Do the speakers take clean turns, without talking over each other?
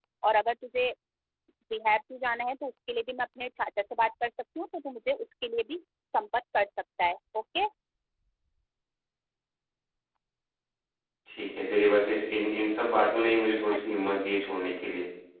Yes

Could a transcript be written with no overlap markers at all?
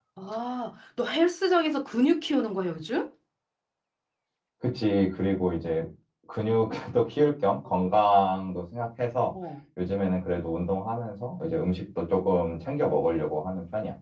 Yes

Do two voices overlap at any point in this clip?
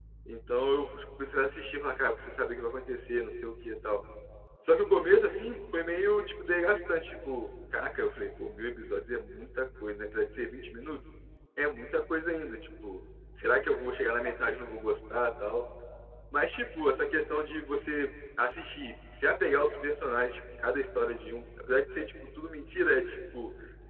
No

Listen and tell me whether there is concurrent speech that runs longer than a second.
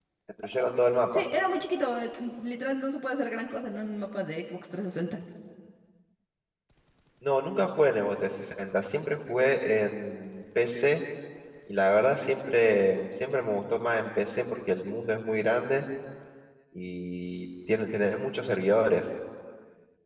No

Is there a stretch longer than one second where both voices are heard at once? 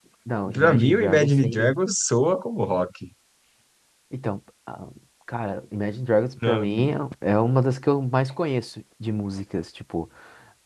Yes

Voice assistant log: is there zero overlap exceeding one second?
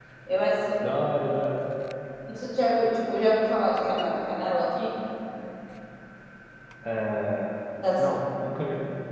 Yes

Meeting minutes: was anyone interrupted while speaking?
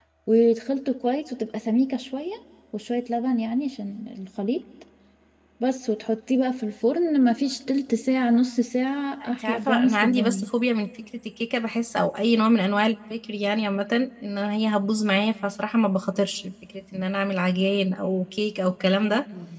Yes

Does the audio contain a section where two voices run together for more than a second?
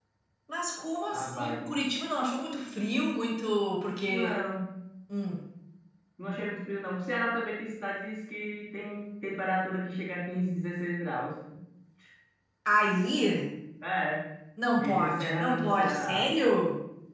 Yes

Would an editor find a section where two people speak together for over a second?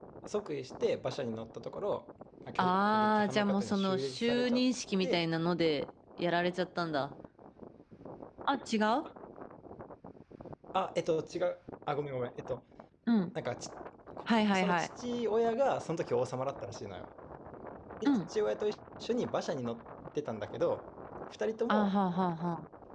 Yes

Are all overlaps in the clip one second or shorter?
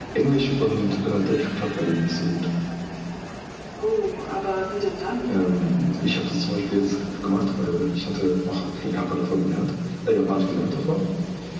Yes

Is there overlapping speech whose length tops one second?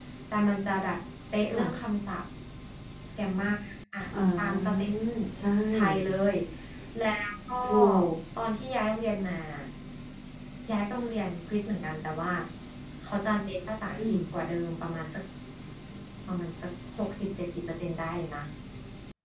No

